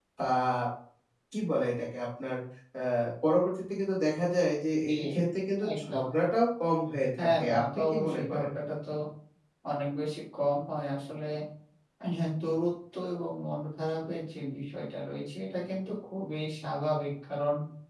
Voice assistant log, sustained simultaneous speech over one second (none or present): present